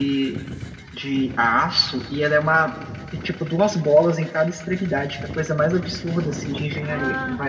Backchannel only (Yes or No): No